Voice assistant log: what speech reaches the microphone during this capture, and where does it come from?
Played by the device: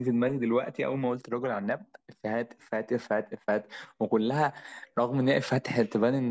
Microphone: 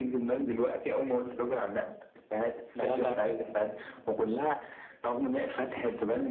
both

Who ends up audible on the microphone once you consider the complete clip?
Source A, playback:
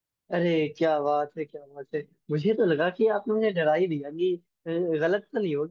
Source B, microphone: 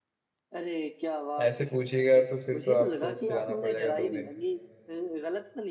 both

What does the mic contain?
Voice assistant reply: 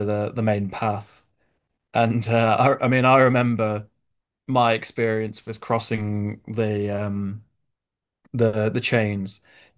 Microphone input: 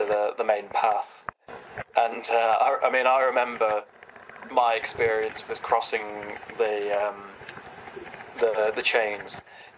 echo only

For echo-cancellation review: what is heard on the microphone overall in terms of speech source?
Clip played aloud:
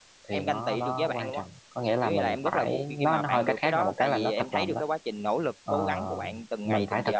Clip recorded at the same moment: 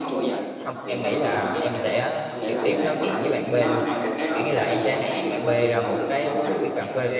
both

